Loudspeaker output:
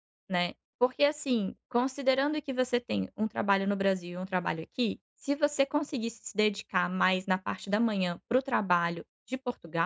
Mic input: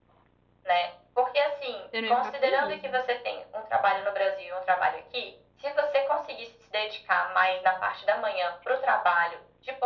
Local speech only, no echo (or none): Você não ia ficar feliz, né?